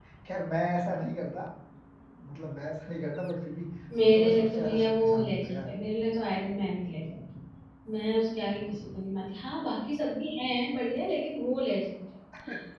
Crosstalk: present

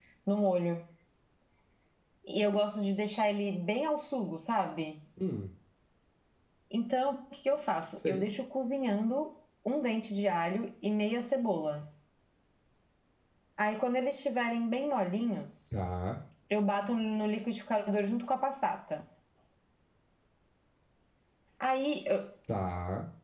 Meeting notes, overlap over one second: none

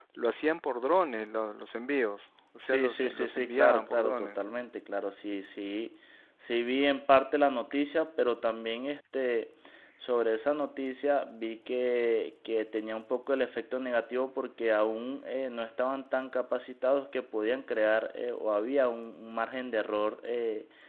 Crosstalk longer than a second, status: present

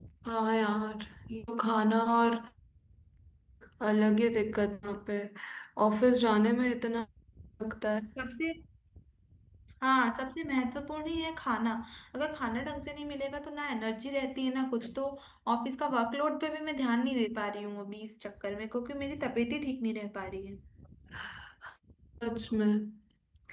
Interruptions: none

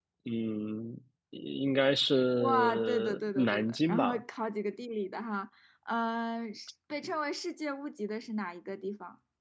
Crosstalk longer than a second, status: present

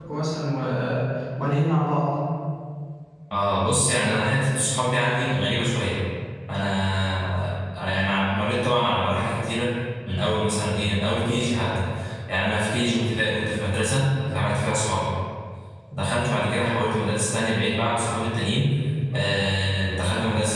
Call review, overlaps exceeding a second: none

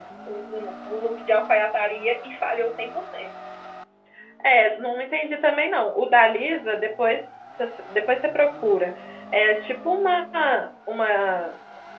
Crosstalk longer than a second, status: none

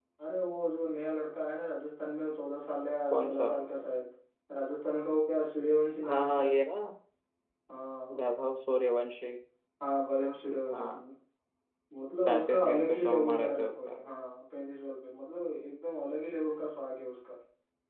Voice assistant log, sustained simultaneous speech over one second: present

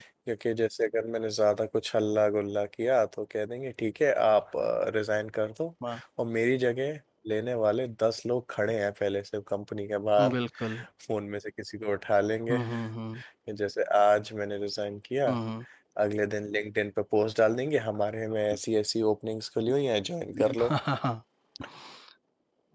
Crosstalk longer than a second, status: none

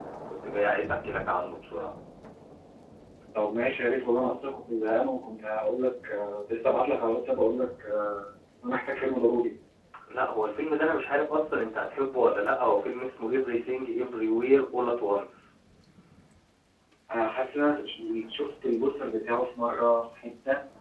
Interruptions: none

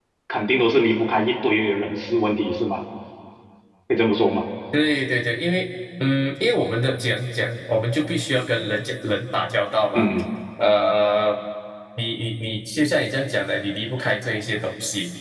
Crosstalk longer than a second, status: none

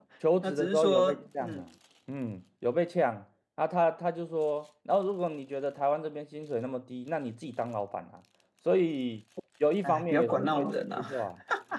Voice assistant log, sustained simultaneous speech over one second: present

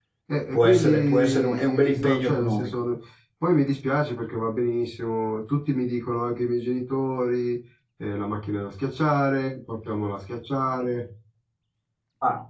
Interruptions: present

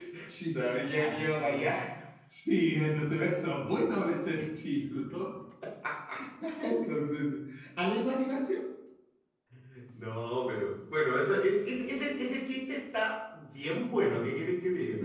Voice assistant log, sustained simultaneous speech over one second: present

